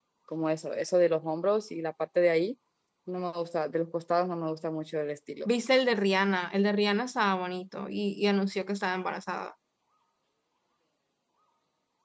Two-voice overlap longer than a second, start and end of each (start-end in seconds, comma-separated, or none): none